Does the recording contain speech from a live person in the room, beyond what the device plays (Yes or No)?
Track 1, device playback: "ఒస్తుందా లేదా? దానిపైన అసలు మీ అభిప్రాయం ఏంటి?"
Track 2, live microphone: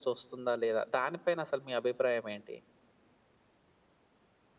No